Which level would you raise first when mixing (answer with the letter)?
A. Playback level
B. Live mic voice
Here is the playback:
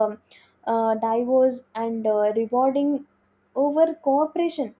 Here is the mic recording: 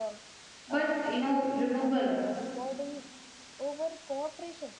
A